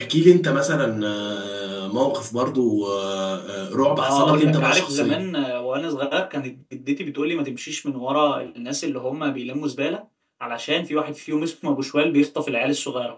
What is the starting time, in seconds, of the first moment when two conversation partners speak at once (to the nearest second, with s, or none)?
4 s